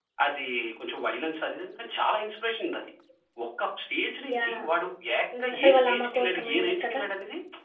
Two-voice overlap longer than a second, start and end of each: 5.5-7.0

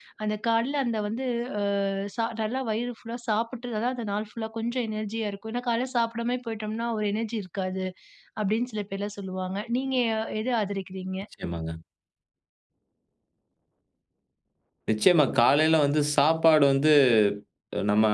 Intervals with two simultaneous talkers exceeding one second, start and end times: none

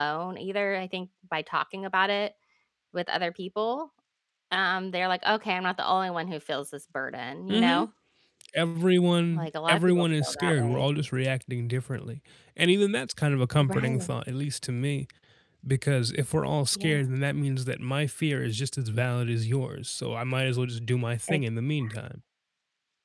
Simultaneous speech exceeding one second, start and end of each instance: 9.3-10.9

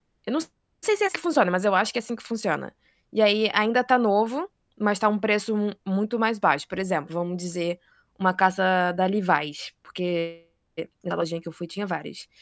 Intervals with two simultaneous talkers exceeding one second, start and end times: none

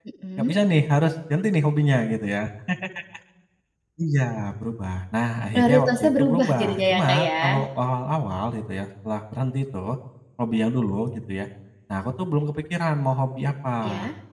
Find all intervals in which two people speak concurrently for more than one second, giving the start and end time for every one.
5.5-7.6

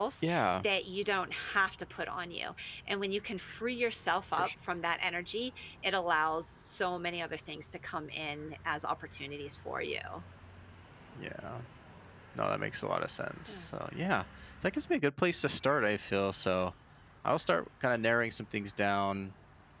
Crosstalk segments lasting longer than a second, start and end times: none

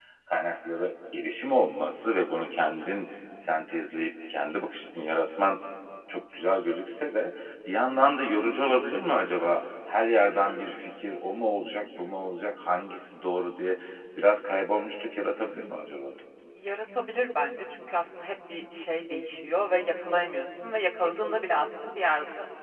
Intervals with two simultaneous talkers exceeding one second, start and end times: none

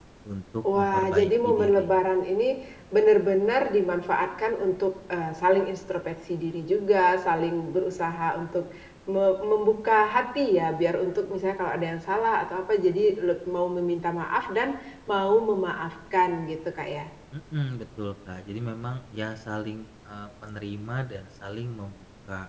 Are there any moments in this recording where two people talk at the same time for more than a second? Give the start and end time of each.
0.7-2.0

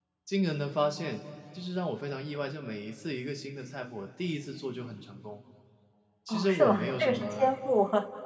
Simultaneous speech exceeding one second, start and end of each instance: 6.3-7.5

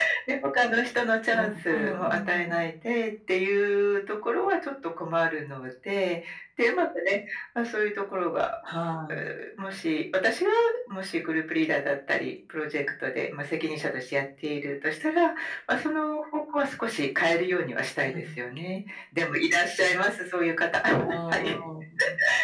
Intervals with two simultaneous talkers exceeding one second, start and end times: 1.3-2.6

